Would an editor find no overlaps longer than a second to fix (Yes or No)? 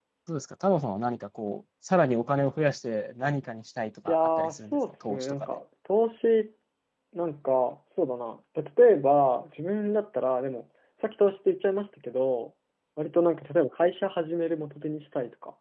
No